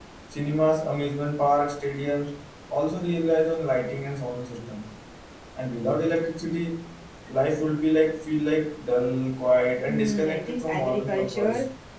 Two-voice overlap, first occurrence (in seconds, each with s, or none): 9.9 s